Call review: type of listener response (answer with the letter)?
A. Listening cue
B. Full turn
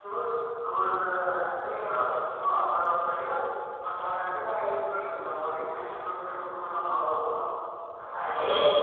B